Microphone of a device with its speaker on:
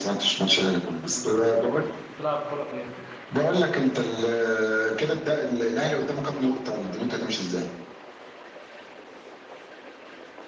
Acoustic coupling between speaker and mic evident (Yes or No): Yes